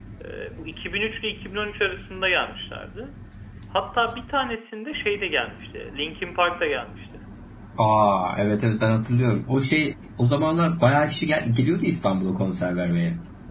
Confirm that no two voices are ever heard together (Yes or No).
Yes